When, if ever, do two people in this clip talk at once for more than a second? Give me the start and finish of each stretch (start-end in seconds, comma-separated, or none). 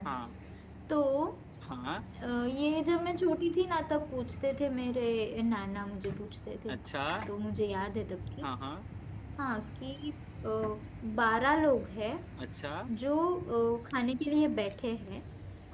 none